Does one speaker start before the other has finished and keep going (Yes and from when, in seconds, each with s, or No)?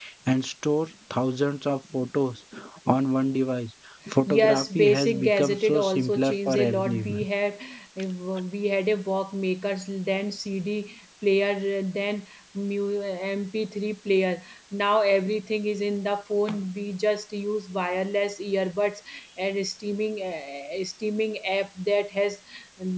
Yes, from 4.3 s